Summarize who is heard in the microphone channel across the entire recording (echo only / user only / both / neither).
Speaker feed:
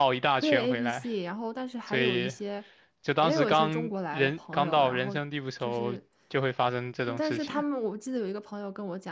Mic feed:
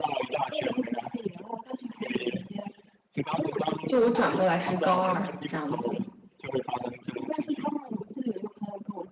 both